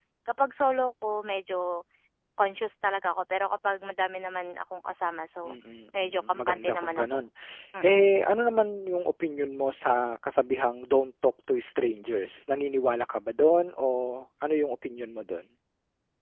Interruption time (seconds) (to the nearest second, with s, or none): 6 s